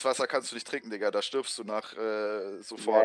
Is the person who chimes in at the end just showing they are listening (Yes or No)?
No